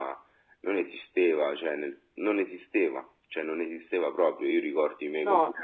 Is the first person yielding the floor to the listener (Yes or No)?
No